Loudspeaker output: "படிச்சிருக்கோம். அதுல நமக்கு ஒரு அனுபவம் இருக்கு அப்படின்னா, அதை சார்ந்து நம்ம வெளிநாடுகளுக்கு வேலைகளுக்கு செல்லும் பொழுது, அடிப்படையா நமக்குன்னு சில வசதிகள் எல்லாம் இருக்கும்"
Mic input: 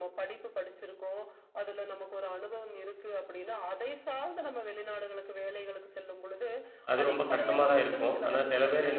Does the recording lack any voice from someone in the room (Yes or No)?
No